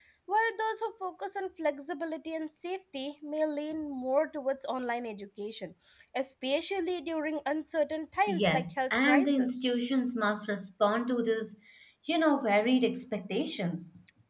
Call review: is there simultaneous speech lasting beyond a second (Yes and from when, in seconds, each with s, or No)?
Yes, from 8.2 s